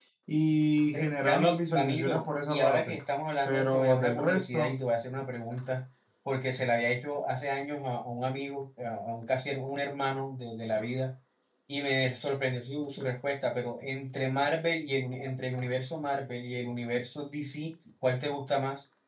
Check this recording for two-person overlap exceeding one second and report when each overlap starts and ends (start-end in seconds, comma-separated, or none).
1.2-3.0, 3.5-4.8